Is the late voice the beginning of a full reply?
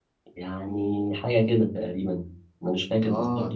No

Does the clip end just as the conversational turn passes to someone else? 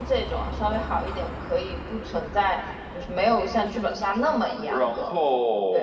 Yes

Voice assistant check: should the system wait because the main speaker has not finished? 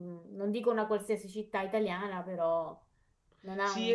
No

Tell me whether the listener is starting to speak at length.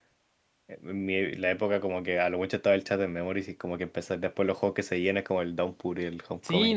Yes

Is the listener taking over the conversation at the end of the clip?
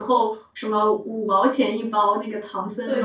Yes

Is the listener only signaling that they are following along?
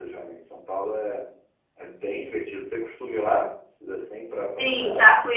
No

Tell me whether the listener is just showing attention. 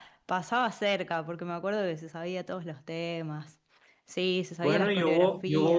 No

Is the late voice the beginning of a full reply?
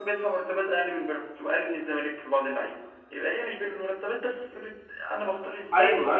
Yes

